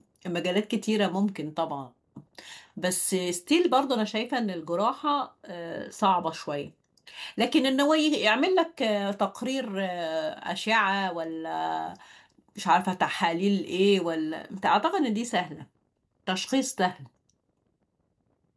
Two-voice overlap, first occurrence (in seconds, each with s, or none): none